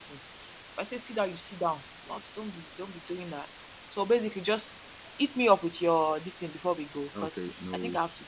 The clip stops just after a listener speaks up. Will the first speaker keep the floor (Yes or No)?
No